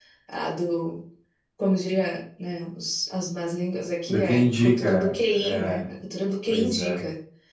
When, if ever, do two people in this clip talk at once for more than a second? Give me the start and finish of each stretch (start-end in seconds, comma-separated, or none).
4.1-5.8